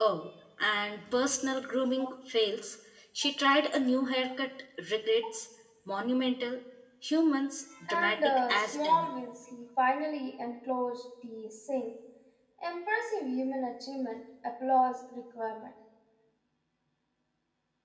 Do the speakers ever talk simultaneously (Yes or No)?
Yes